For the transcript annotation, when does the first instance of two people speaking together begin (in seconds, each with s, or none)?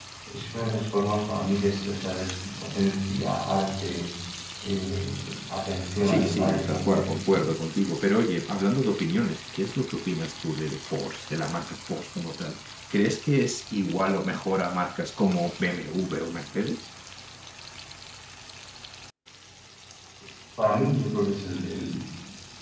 6.0 s